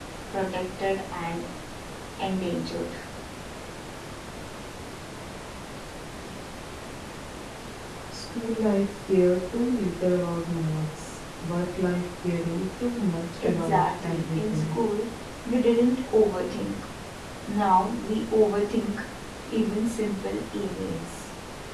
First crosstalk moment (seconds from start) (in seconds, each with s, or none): 13.4 s